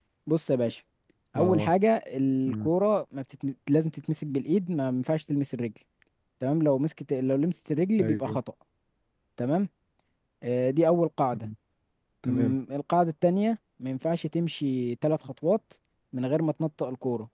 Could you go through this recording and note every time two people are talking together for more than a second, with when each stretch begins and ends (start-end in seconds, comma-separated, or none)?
none